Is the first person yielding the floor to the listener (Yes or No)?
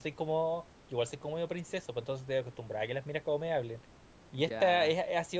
No